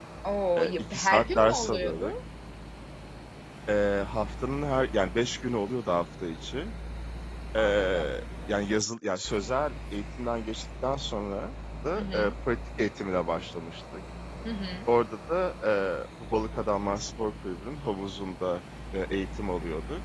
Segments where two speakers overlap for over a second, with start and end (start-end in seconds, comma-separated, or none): 0.6-2.1